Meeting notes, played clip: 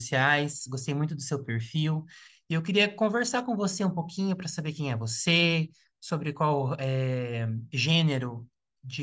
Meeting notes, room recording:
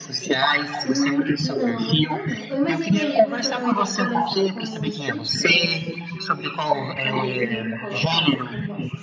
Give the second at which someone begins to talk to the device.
0.8 s

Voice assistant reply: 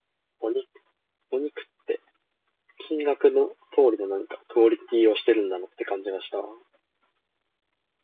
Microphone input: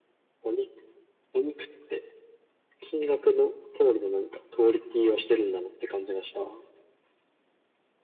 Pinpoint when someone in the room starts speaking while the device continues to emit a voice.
none

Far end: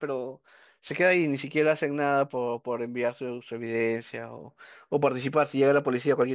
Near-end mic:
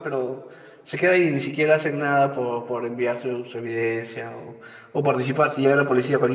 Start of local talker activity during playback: none

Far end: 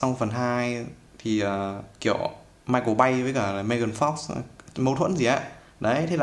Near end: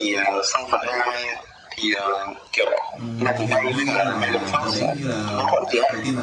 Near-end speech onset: 3.0 s

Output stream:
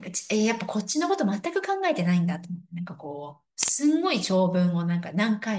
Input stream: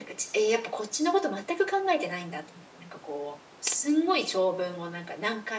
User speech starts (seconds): none

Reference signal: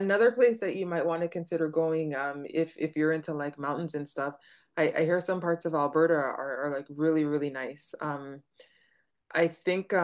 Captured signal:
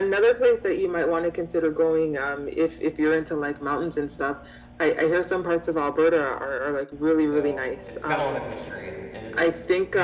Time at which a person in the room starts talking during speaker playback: 7.2 s

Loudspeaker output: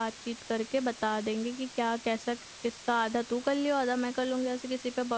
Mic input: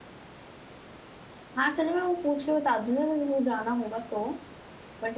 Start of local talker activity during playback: 1.6 s

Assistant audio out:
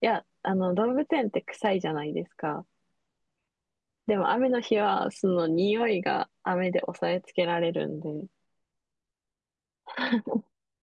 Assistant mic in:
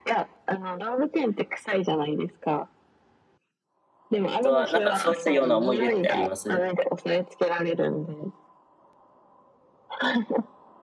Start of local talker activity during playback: 4.4 s

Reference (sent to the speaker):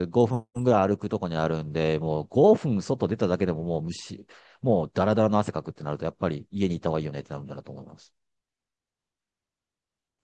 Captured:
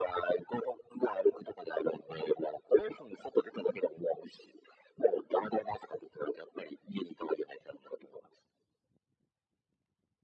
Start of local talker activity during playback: none

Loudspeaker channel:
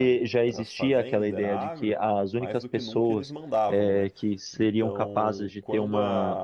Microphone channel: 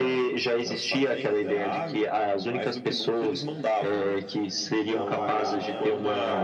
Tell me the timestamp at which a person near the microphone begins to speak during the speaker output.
4.9 s

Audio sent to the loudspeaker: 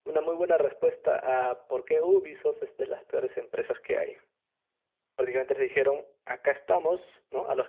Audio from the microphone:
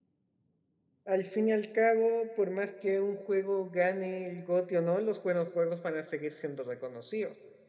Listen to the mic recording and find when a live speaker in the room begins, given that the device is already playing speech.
1.0 s

